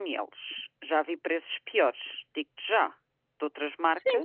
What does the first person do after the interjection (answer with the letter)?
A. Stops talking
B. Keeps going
A